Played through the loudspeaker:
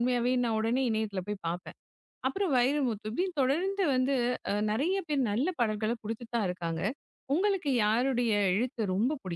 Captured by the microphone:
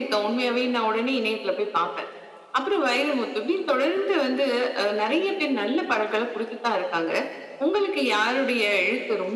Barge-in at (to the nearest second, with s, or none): none